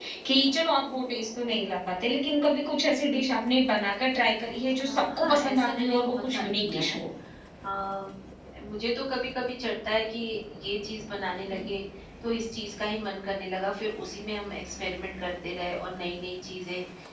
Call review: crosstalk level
present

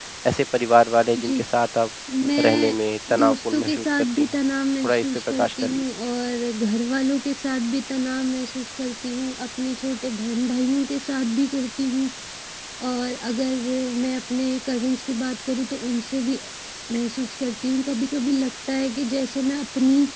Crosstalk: present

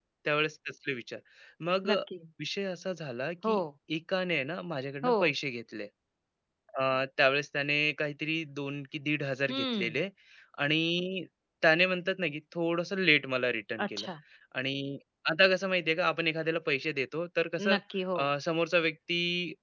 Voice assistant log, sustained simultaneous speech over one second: none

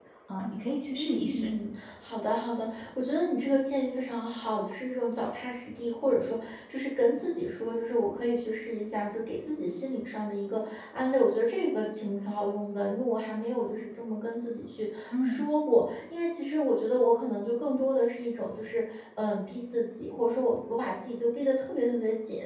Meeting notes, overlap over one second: none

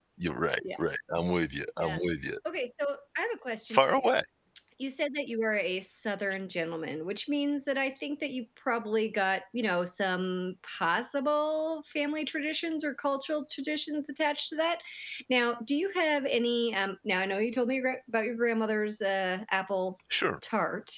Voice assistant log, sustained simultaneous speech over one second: none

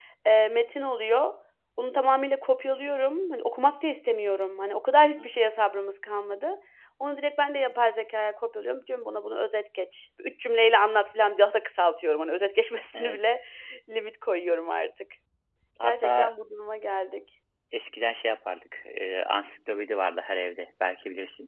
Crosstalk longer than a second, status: none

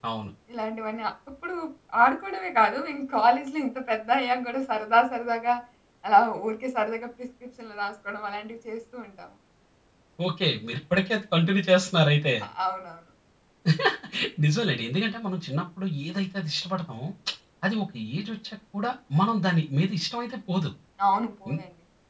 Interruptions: none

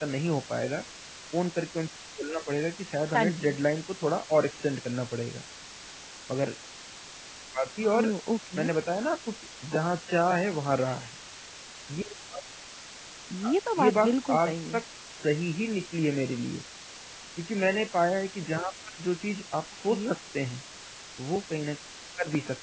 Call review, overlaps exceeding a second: present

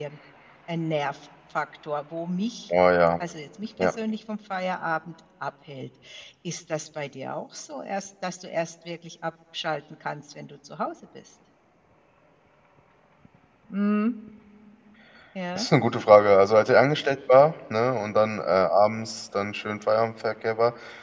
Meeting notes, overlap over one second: none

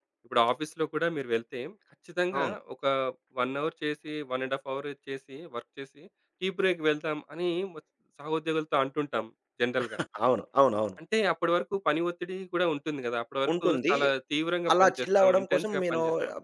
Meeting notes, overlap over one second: present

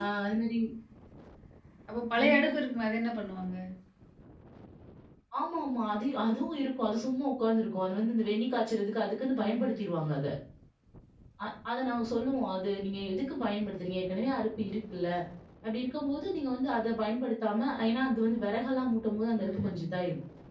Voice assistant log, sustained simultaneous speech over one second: none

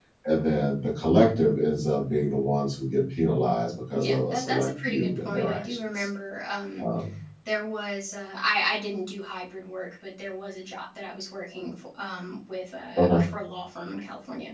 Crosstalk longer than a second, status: present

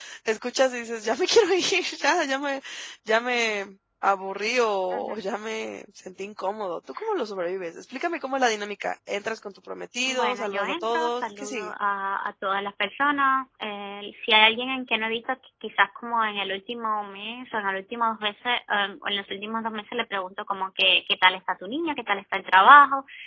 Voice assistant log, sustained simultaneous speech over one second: present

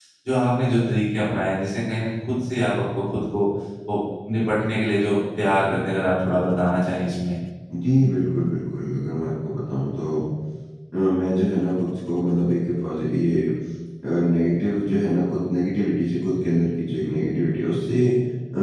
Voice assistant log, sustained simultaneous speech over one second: none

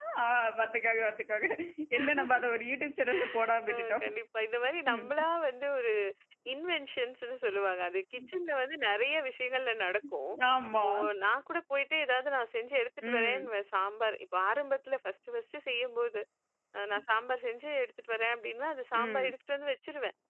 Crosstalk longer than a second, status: none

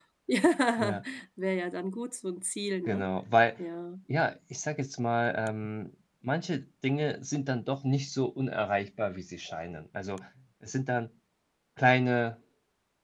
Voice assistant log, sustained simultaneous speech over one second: none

